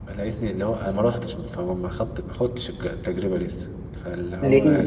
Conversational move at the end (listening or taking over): listening